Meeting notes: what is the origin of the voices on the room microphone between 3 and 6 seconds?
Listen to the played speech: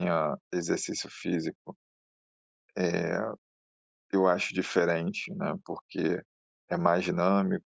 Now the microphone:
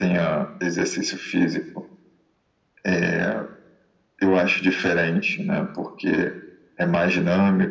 echo only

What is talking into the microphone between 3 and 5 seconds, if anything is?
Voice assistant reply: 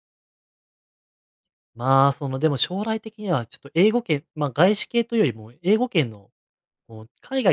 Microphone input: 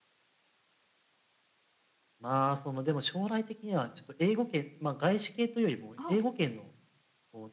echo only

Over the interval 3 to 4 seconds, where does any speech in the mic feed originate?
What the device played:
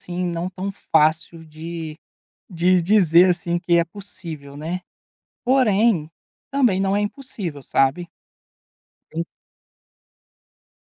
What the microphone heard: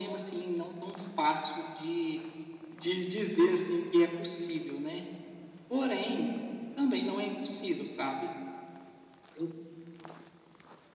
echo only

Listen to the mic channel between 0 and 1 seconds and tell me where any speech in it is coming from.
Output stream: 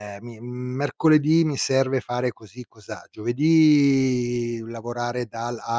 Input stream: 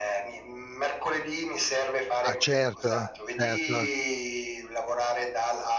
echo only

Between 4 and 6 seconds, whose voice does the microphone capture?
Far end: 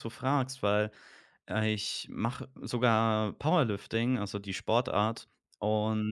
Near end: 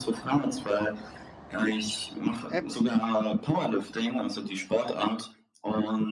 echo only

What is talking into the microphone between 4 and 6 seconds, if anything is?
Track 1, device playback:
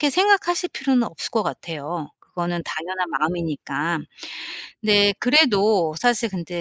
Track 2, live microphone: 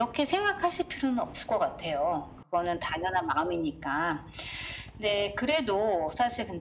echo only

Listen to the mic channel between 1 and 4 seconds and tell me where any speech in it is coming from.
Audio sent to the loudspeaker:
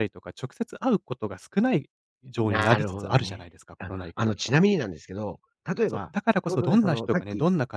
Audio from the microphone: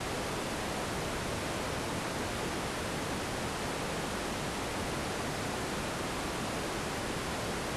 neither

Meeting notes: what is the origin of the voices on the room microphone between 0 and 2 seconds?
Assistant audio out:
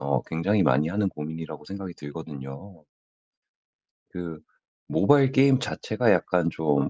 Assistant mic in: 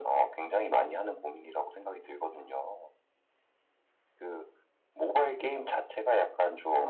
echo only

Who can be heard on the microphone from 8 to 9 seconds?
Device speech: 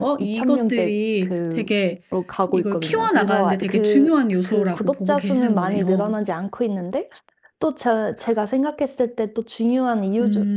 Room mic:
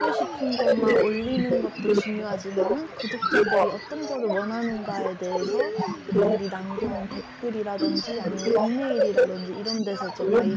both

